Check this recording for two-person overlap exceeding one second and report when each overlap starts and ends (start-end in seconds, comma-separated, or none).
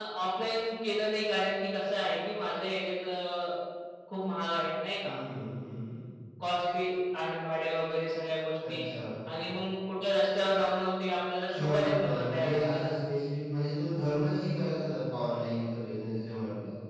11.5-12.9